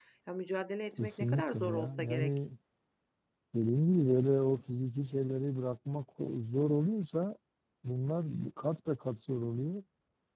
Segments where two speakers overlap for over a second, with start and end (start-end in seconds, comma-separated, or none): 0.9-2.4